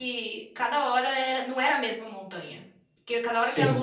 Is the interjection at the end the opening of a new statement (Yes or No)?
No